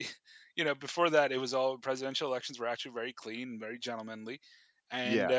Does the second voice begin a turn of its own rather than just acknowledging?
No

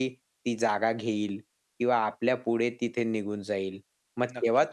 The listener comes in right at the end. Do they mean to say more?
No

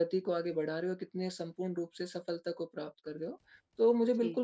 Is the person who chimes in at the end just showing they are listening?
Yes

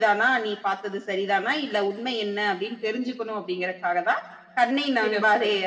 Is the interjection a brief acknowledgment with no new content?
Yes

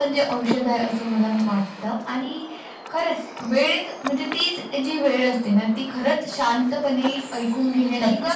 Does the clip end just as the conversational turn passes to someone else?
Yes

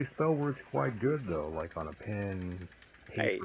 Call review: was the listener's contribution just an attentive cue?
Yes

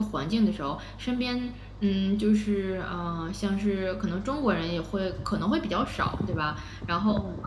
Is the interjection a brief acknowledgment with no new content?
Yes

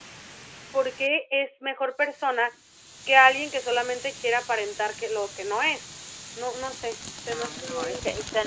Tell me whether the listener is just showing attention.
No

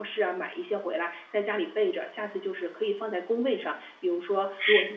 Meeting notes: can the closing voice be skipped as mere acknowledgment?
Yes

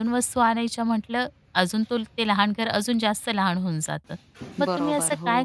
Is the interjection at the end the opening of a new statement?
No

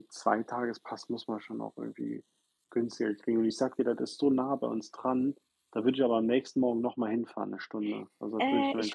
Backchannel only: No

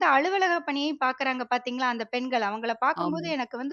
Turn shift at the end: No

